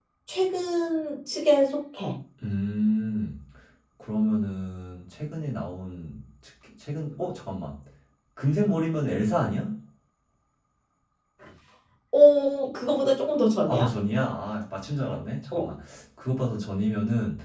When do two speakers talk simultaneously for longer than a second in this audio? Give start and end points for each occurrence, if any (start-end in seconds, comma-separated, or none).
none